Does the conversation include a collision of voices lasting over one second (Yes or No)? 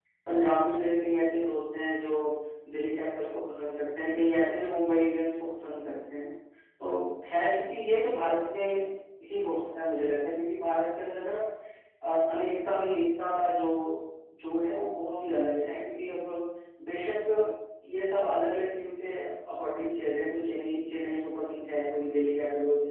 No